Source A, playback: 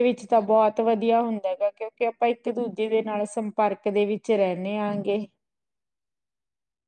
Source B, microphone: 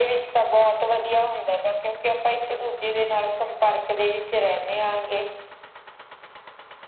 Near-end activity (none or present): none